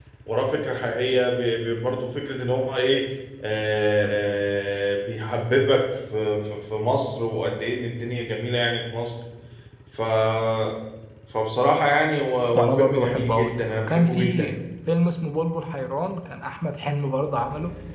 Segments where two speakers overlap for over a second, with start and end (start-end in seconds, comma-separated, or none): 12.6-14.5